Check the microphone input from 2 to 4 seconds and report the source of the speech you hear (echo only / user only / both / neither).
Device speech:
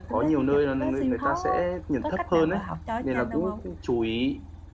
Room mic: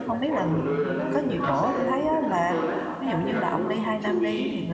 both